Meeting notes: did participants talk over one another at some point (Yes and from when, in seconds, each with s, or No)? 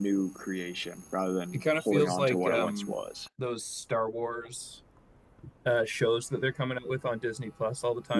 Yes, from 1.5 s